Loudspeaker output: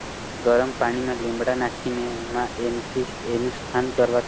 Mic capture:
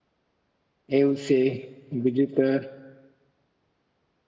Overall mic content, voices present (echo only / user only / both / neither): user only